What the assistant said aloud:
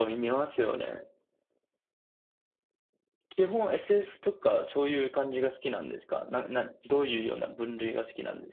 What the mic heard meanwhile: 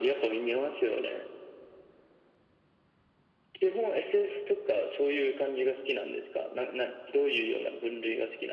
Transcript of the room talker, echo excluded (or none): none